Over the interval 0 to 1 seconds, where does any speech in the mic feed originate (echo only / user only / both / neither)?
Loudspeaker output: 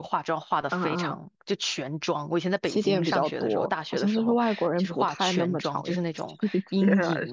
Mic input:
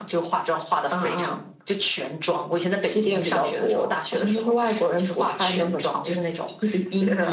echo only